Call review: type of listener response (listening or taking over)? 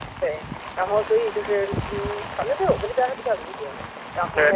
taking over